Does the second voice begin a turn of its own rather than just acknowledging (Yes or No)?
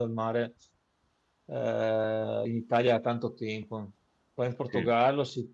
No